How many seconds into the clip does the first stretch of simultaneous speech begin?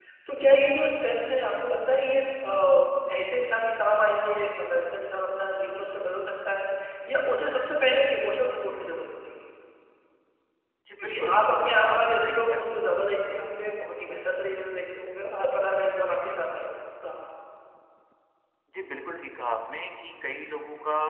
11 s

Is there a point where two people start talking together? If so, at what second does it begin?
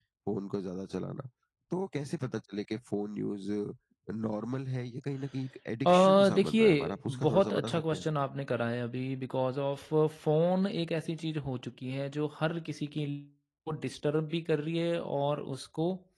6 s

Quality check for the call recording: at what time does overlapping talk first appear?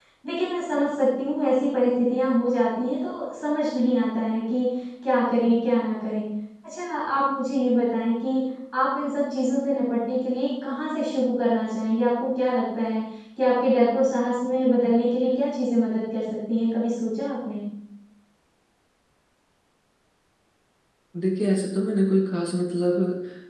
none

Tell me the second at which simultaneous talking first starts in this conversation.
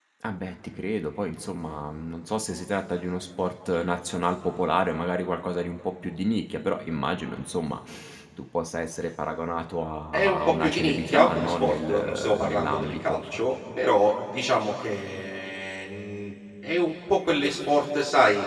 10 s

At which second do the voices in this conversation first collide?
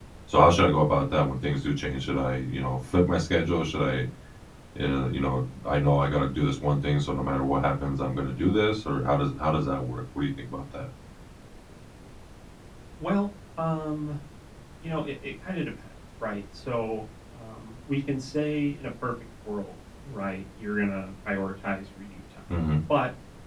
none

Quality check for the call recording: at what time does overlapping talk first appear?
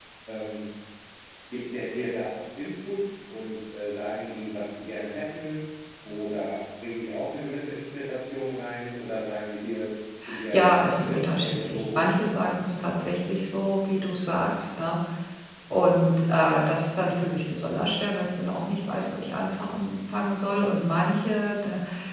11 s

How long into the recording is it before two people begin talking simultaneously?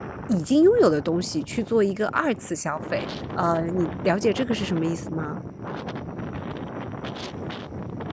none

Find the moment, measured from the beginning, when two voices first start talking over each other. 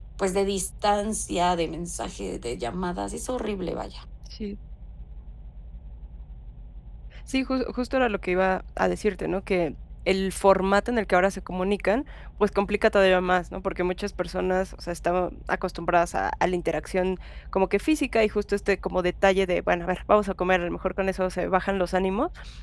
none

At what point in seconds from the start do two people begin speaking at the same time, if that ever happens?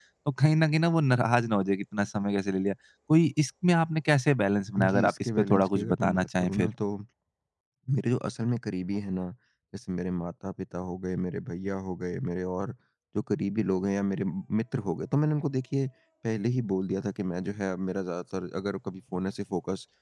5 s

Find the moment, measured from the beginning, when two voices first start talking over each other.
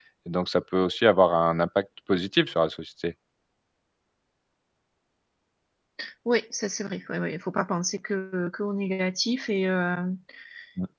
none

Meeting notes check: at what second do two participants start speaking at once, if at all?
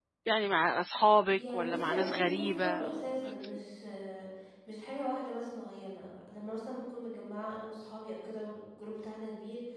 1 s

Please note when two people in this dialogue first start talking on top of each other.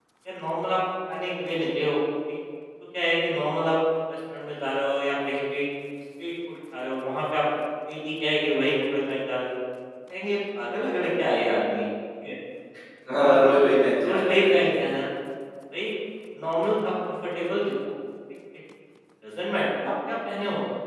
13 s

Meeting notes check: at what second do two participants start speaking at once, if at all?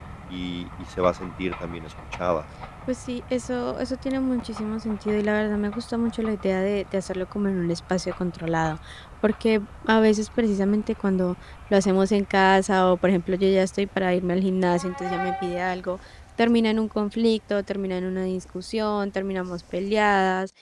none

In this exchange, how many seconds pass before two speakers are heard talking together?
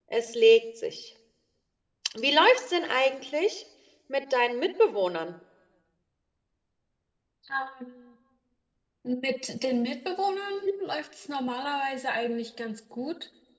none

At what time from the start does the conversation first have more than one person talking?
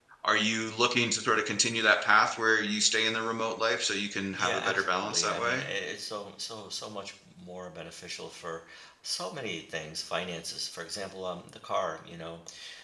4 s

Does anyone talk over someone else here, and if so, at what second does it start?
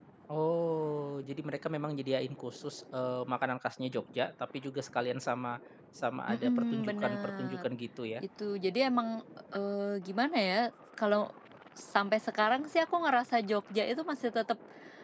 6 s

